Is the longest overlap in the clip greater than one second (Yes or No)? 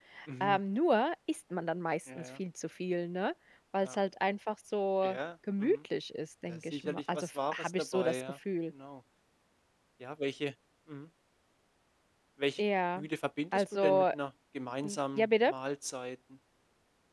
Yes